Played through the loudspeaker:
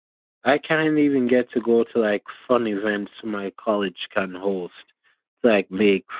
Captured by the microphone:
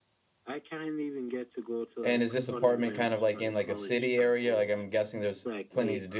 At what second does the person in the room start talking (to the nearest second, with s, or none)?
2 s